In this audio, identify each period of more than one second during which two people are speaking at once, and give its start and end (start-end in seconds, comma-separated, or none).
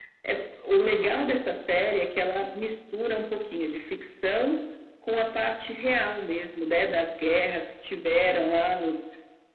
none